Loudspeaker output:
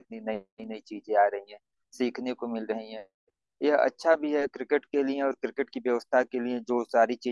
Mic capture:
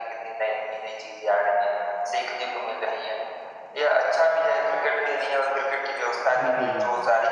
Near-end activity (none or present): present